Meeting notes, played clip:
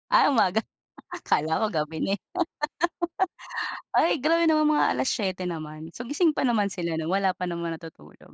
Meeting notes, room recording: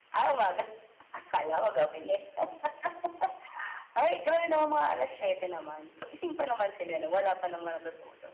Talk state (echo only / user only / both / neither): echo only